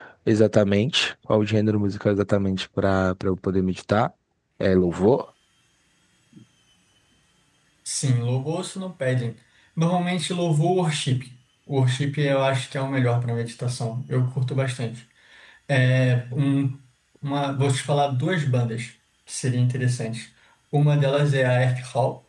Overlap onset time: none

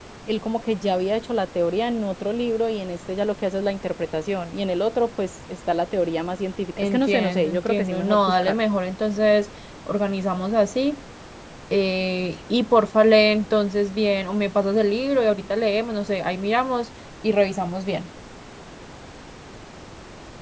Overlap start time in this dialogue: 7 s

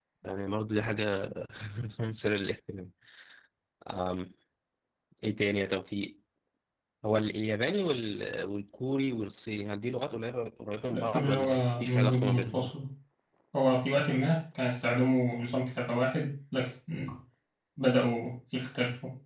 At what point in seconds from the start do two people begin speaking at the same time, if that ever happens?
11 s

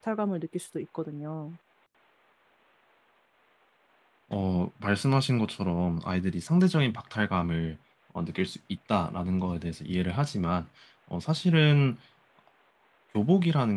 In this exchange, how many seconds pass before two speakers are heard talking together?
none

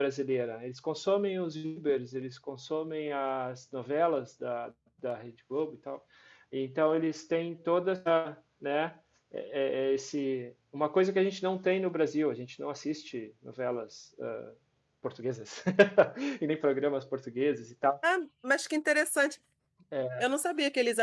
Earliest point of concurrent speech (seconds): none

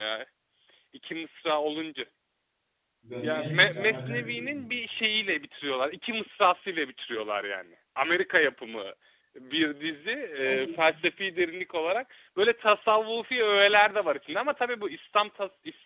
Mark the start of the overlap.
3 s

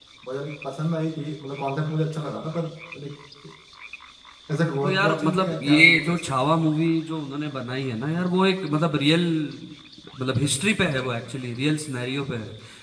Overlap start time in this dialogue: 5 s

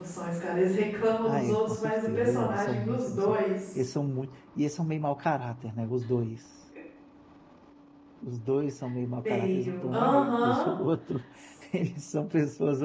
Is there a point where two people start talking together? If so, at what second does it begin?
1 s

